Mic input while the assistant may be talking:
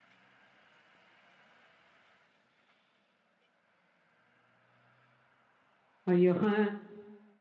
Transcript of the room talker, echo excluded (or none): ஐயோ! ஆ.